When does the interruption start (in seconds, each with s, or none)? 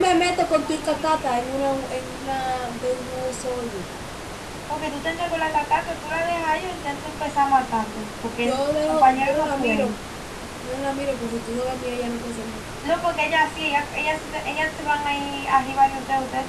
8.4 s